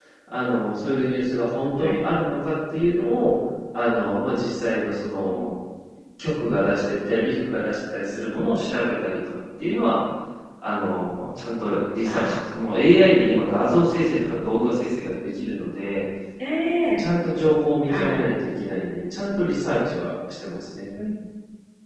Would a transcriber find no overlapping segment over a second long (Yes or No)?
Yes